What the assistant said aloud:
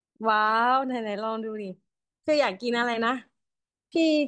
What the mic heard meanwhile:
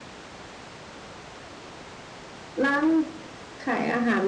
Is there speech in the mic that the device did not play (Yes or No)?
Yes